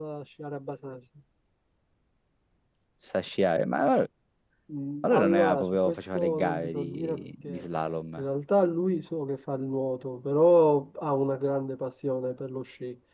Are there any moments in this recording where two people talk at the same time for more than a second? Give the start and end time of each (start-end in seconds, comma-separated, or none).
5.0-7.6